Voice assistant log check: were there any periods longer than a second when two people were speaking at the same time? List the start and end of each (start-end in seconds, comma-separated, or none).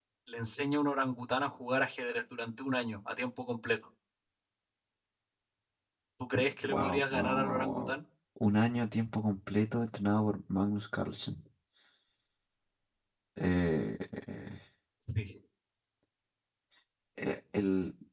6.7-7.9